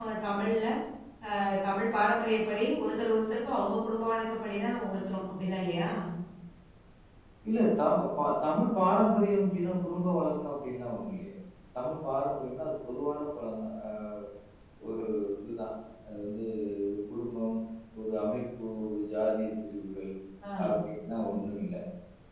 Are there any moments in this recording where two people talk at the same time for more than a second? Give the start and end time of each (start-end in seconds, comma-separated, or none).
none